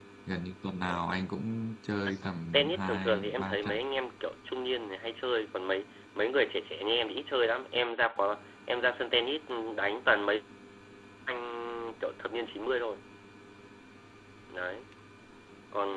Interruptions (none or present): present